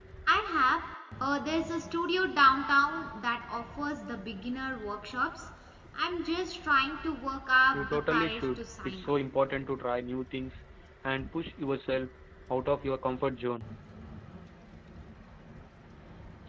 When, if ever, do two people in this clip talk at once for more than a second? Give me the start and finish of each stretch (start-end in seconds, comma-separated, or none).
7.7-9.1